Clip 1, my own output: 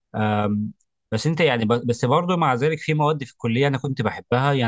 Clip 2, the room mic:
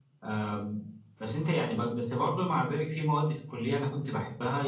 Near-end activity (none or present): none